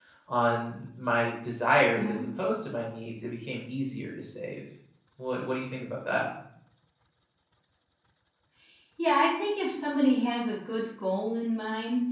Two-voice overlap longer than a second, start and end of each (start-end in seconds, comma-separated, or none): none